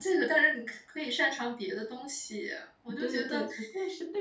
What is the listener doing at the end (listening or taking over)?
taking over